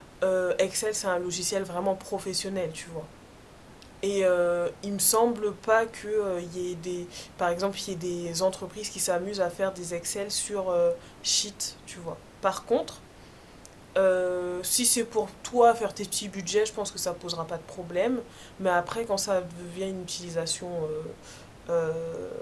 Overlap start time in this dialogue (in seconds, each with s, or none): none